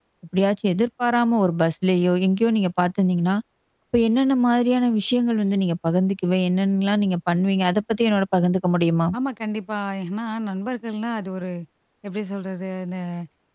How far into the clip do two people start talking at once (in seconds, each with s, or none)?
none